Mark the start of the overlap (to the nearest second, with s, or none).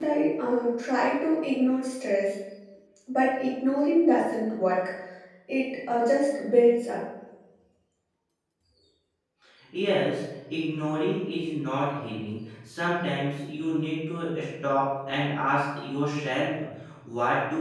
none